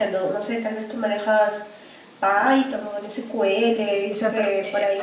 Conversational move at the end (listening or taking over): taking over